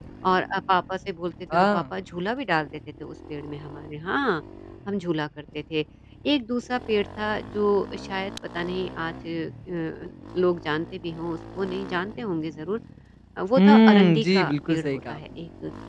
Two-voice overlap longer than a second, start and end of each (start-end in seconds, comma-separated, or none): 13.6-15.2